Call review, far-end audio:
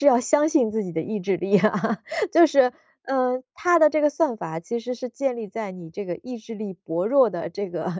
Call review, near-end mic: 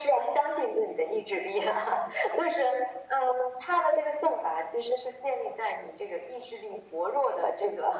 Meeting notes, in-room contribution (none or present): none